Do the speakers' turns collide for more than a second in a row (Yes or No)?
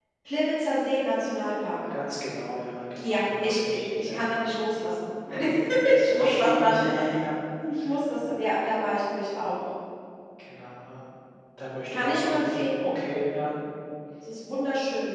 Yes